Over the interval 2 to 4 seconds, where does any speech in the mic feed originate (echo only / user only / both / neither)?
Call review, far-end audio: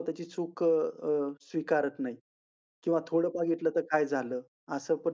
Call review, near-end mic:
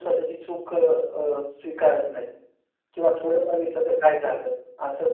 echo only